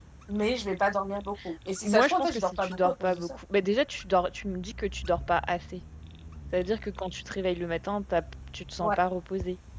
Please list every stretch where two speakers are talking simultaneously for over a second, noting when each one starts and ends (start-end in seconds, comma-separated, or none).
1.8-3.4